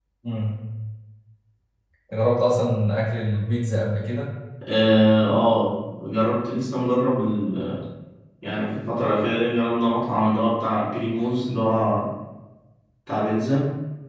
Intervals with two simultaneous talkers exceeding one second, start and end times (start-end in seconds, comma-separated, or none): none